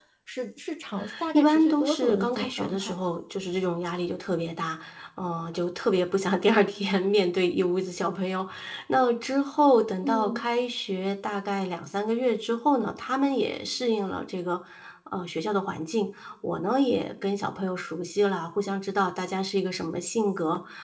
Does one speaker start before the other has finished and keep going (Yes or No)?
Yes